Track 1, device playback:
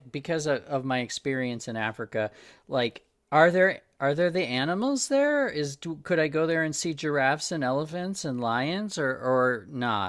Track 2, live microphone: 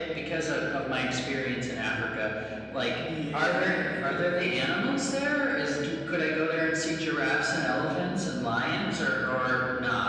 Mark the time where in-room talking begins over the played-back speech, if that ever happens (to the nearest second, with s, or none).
3 s